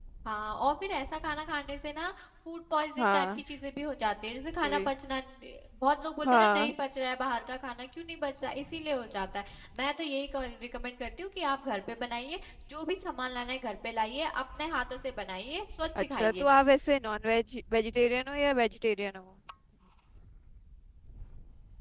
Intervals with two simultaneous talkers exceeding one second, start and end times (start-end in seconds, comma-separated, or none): none